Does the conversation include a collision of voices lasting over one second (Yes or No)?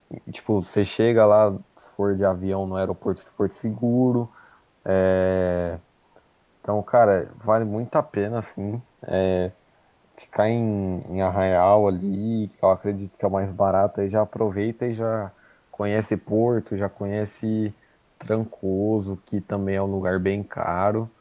No